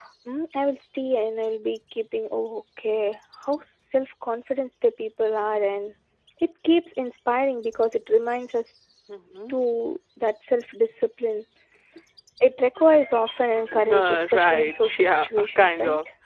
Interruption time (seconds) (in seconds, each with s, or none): 13.8 s